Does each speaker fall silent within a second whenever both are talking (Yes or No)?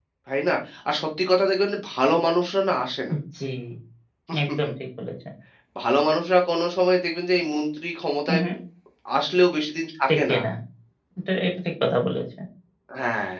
Yes